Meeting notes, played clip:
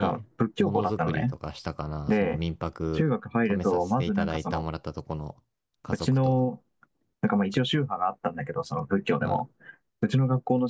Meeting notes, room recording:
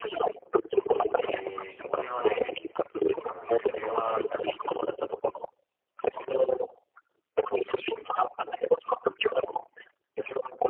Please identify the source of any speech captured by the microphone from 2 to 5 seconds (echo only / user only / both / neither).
both